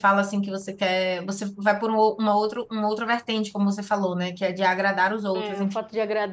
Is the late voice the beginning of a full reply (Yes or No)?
Yes